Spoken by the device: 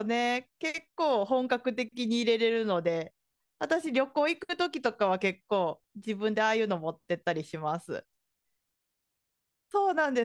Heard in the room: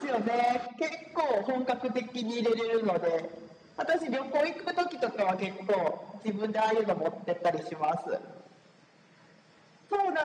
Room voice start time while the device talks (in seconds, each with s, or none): none